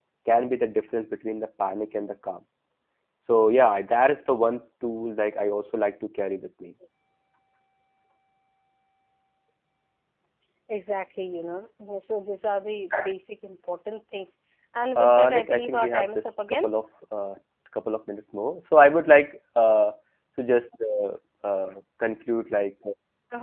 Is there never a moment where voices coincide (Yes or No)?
No